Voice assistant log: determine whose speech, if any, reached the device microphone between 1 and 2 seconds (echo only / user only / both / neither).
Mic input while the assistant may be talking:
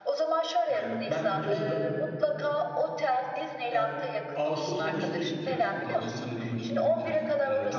both